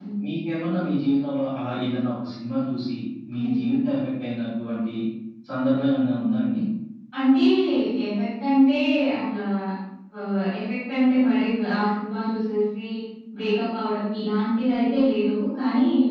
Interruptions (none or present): none